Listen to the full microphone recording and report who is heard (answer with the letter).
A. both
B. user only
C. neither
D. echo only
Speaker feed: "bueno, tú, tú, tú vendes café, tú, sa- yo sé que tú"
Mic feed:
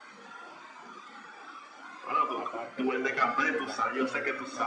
A